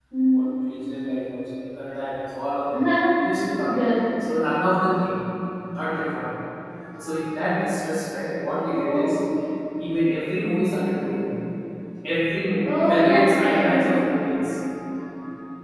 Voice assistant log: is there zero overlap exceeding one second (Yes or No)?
No